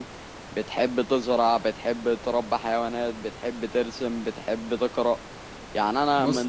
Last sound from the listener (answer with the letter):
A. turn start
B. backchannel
B